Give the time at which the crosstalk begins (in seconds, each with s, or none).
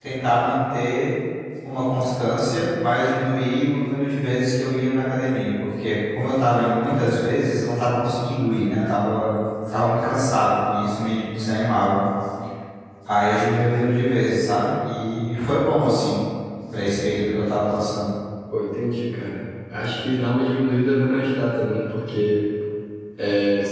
none